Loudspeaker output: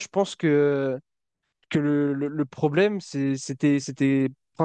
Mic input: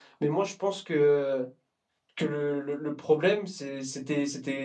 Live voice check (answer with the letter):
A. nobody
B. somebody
A